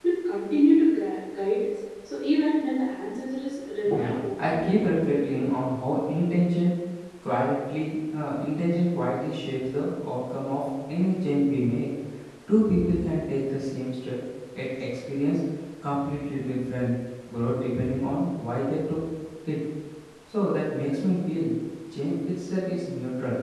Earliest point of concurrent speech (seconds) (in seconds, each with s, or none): 3.9 s